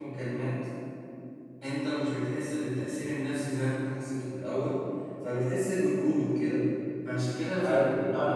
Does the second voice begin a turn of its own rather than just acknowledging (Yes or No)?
No